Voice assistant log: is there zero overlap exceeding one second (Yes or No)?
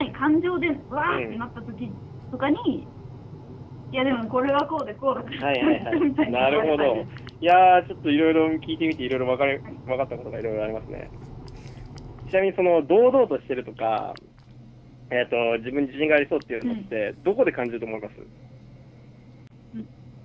No